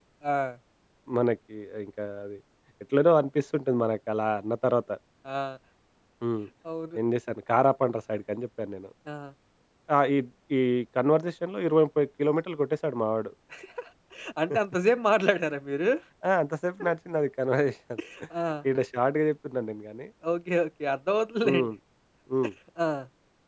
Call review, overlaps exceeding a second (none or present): none